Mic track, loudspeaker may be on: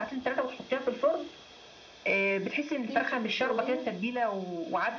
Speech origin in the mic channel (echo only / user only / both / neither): both